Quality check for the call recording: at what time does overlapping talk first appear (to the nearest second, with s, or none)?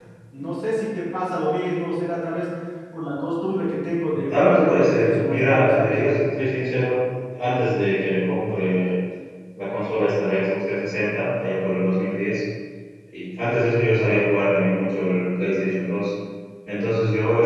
4 s